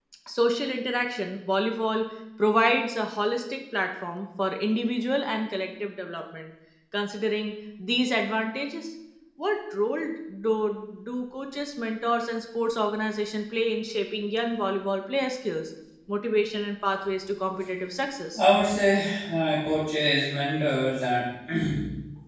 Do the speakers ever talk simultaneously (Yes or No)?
No